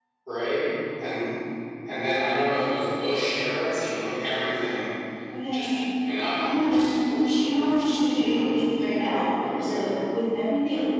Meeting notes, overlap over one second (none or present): present